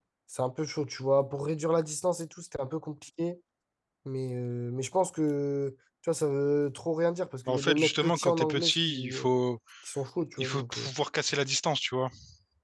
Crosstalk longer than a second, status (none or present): present